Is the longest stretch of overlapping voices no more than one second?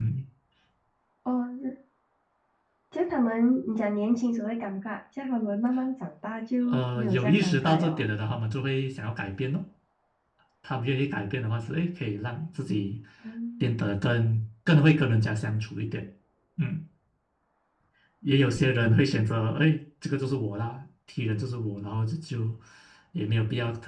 No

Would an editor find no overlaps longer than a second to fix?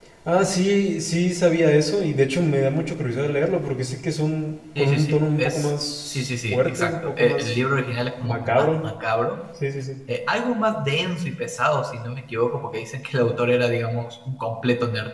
No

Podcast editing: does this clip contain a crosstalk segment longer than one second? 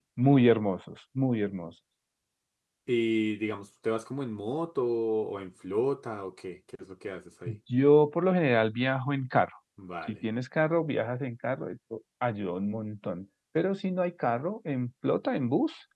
No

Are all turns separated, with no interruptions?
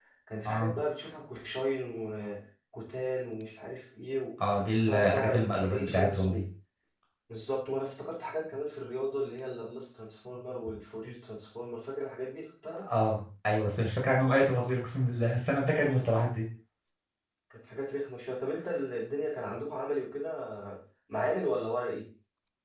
No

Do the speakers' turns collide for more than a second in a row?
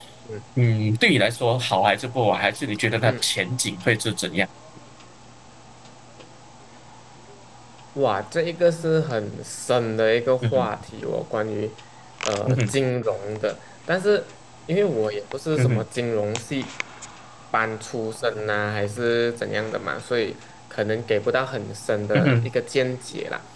No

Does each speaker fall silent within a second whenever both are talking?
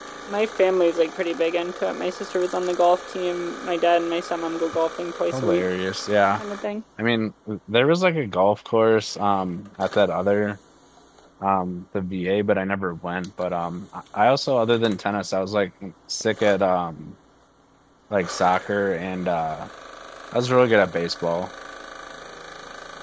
Yes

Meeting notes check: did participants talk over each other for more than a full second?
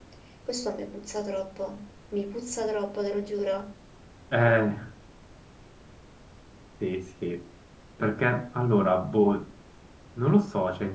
No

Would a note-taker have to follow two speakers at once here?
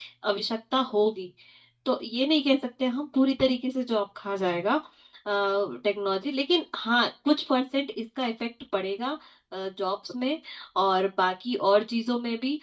No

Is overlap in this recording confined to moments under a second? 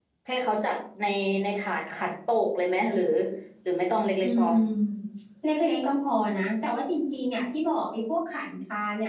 Yes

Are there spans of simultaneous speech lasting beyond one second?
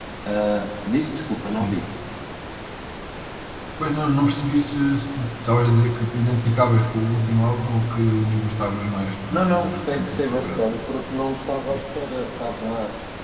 Yes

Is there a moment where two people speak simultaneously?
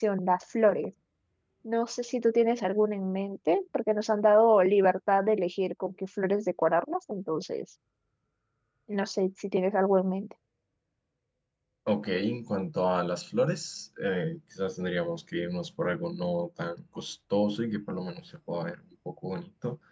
No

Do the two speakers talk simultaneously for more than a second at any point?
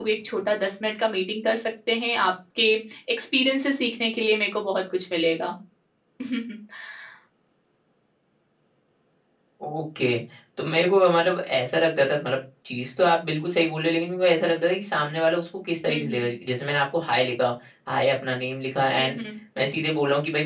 No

